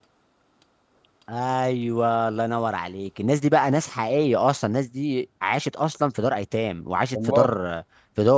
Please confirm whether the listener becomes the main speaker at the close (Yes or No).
No